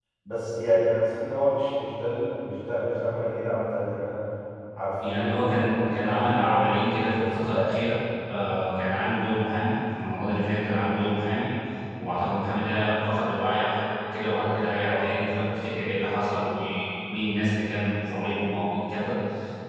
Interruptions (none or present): present